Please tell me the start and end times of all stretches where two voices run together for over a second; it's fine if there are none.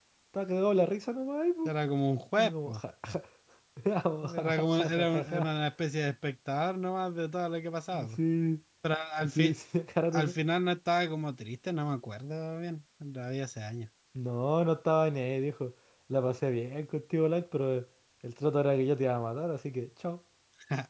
4.2-5.5

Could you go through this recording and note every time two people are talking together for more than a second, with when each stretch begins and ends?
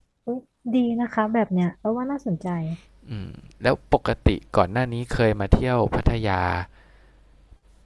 none

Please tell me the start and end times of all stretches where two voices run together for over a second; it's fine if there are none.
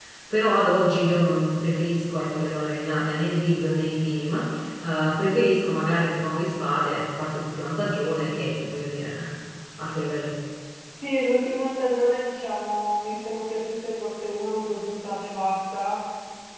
none

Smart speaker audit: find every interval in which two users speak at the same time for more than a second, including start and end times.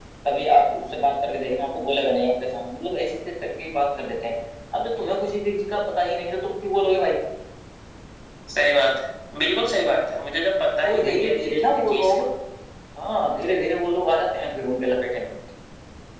10.8-12.1

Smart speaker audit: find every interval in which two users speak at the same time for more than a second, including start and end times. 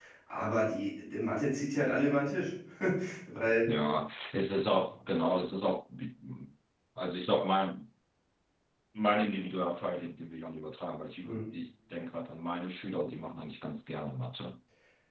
none

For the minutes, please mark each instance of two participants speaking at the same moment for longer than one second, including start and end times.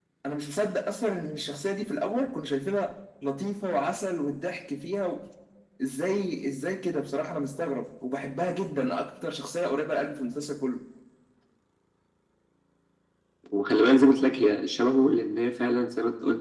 none

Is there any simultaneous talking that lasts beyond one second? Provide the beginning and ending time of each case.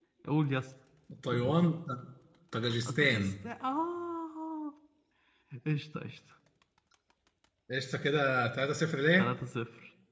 none

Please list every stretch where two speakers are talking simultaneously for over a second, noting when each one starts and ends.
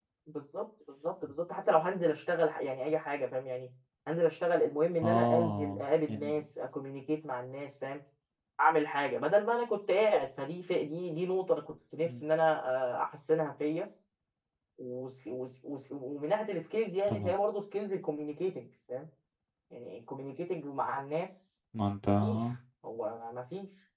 5.0-6.4

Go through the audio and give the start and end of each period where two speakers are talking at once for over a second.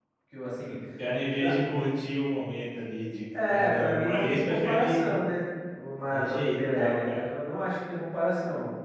3.5-5.2, 6.1-7.4

